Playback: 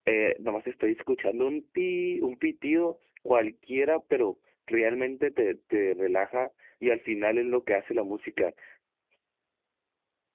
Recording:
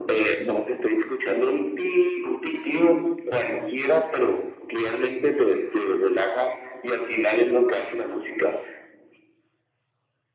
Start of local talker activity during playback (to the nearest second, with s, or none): none